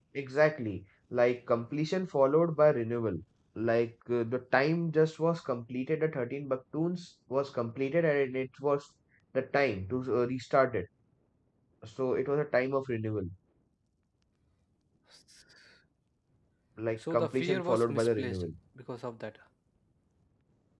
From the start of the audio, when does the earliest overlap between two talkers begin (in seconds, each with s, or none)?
17.1 s